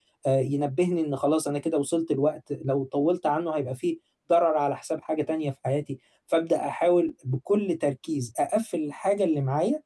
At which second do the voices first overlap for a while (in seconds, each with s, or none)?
none